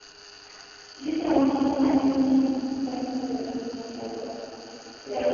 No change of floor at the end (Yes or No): Yes